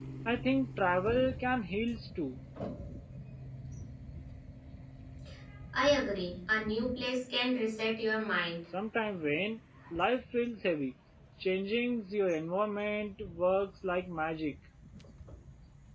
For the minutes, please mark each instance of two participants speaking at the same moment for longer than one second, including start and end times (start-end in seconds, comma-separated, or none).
none